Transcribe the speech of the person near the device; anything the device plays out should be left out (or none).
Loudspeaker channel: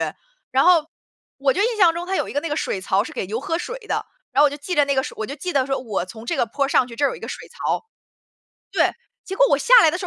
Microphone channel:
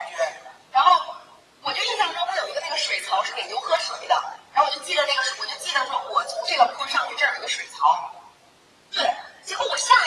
none